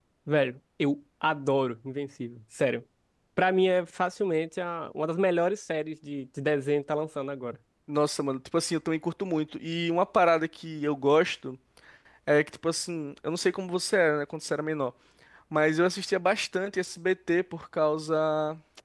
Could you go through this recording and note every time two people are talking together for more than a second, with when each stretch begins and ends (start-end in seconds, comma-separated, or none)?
none